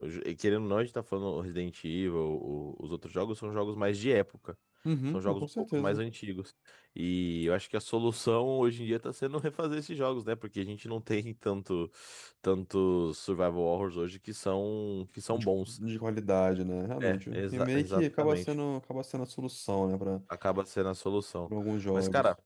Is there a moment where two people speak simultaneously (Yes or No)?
Yes